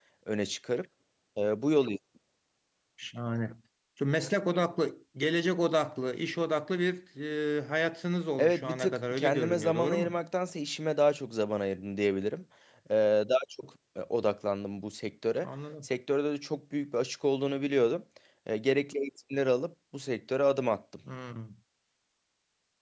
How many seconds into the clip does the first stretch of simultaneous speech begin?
8 s

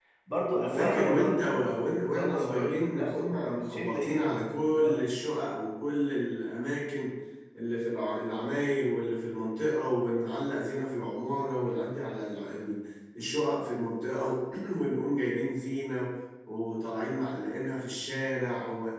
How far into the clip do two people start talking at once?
1 s

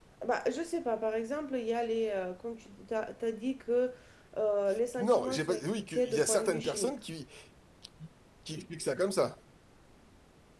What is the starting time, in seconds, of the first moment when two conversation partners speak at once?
5 s

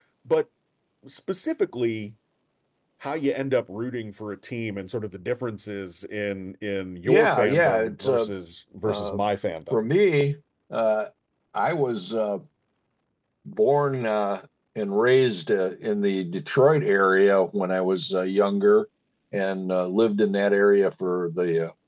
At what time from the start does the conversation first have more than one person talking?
7 s

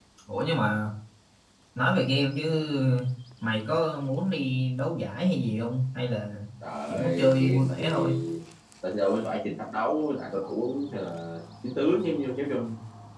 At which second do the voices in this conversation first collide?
7 s

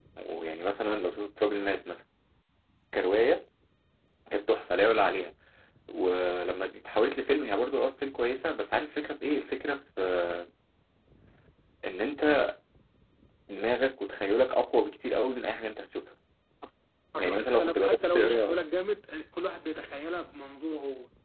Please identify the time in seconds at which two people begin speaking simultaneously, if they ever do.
17 s

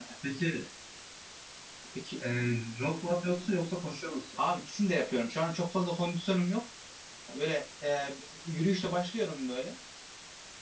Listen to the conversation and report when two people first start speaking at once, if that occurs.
none

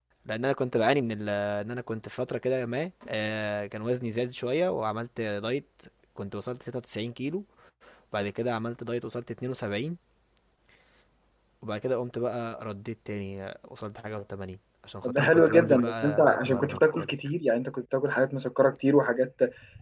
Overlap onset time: 15 s

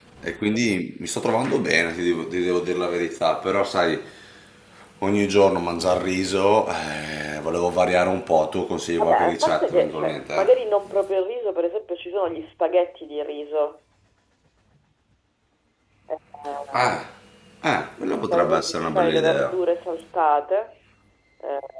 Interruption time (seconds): 9 s

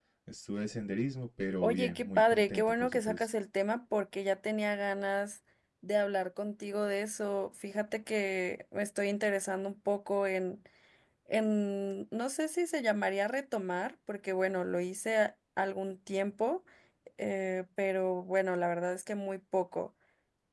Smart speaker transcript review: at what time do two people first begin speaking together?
2 s

